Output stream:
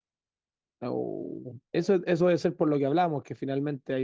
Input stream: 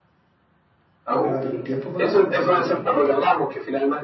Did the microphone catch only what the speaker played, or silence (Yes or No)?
No